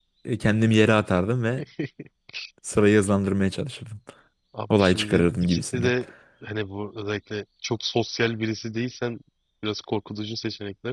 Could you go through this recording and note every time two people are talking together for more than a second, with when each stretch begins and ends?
4.7-5.9

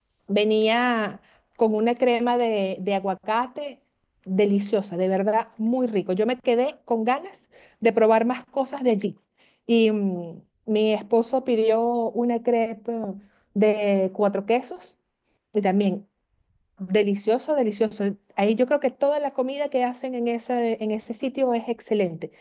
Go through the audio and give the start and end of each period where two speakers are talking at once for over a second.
none

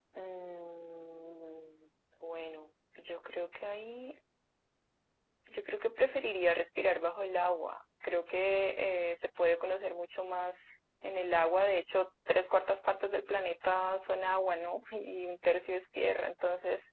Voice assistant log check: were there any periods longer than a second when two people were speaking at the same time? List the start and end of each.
none

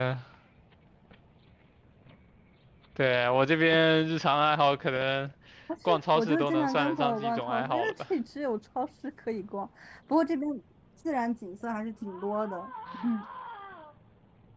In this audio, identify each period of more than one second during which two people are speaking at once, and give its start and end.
5.8-7.9

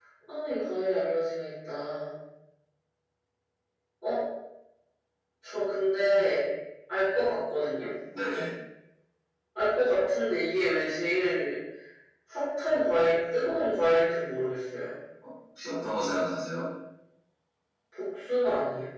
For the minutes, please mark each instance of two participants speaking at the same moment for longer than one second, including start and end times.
none

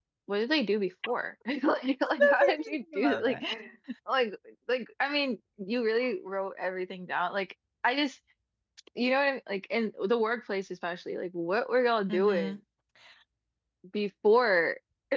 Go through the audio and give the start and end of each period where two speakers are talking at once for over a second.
2.1-3.4

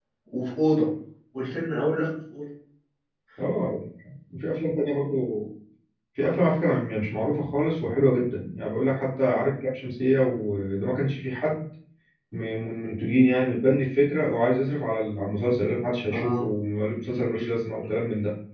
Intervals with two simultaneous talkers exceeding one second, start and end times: none

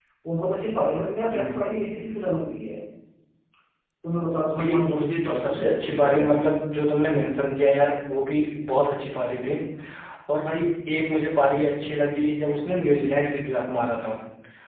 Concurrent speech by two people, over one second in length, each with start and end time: 4.6-6.3

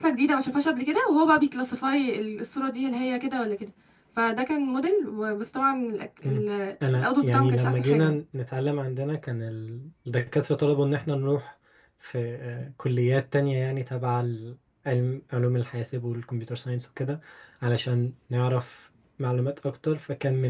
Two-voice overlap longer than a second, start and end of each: 6.9-8.2

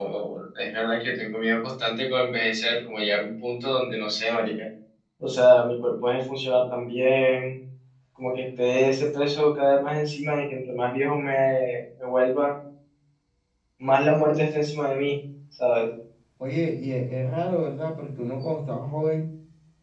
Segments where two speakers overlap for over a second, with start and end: none

